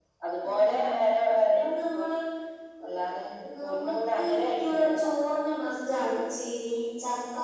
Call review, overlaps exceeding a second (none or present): present